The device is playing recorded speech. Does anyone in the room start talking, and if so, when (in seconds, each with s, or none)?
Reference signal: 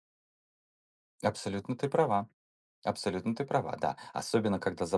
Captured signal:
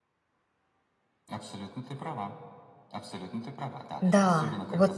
4.0 s